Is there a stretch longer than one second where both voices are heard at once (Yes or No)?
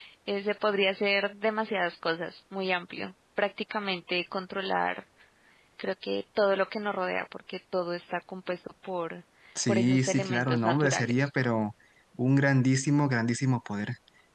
Yes